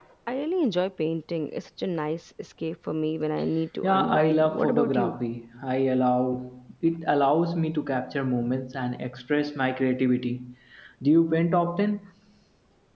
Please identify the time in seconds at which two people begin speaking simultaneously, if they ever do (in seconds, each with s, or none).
3.8 s